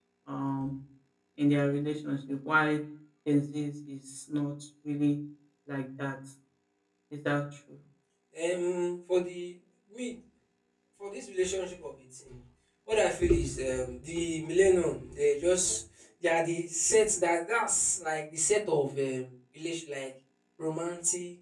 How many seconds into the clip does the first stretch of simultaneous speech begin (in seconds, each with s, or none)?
none